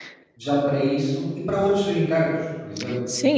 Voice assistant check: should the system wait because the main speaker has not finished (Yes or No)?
No